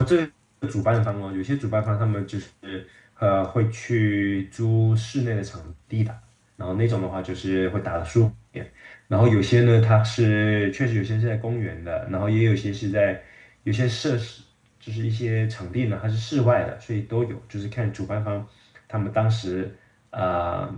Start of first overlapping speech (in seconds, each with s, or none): none